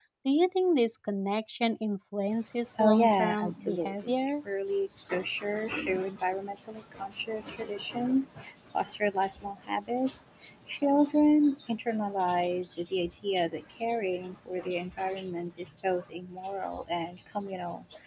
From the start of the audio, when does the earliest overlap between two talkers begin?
2.8 s

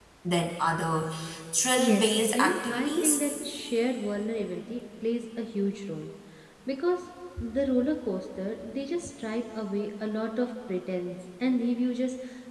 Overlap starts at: 1.8 s

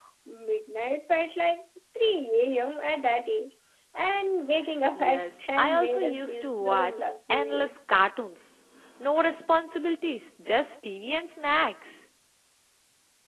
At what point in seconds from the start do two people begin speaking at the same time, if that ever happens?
4.9 s

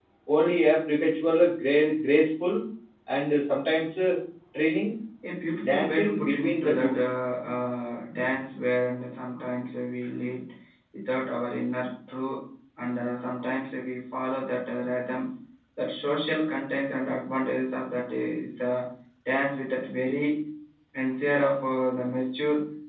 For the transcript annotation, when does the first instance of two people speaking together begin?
5.6 s

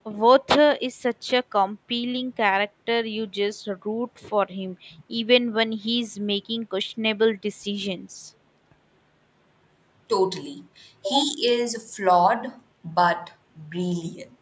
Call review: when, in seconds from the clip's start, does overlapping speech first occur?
none

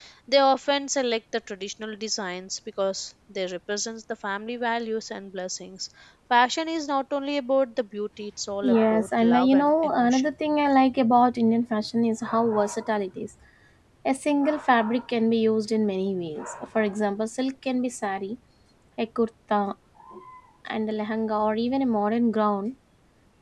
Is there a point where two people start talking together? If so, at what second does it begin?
8.6 s

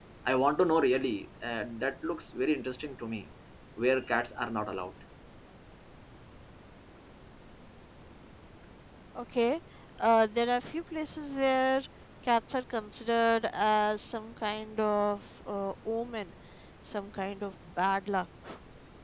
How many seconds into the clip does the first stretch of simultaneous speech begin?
none

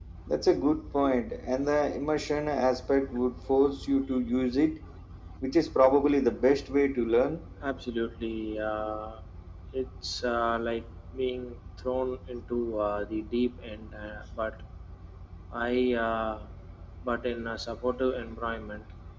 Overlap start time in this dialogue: none

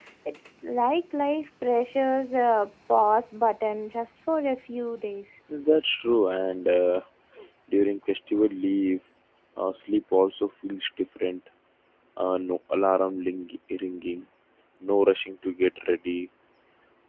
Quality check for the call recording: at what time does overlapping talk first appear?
none

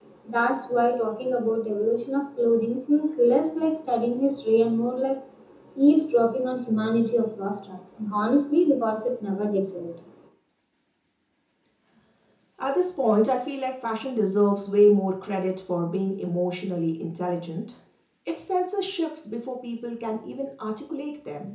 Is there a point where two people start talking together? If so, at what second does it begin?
none

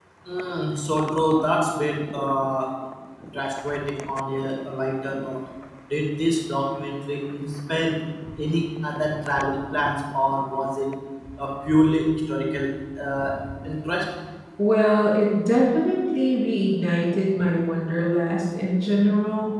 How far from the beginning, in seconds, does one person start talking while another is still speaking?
none

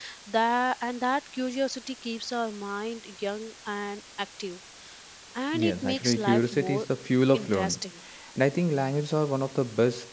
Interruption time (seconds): 5.5 s

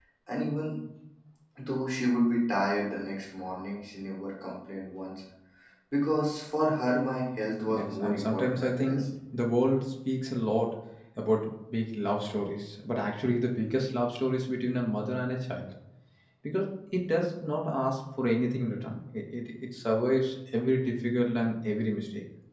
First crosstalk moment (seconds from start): 7.7 s

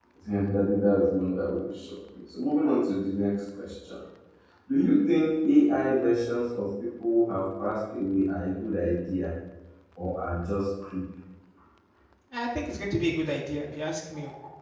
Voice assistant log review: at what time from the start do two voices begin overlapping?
none

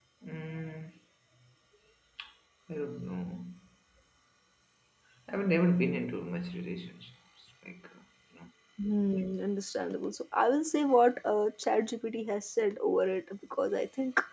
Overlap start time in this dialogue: none

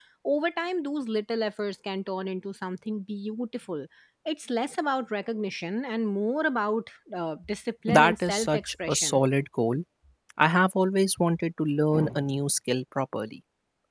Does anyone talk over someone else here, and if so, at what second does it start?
7.9 s

